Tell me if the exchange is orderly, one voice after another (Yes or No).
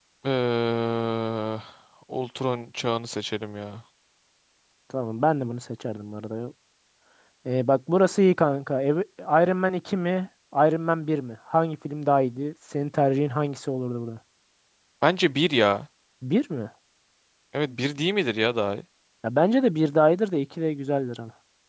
Yes